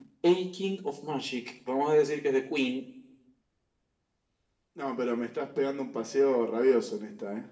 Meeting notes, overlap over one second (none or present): none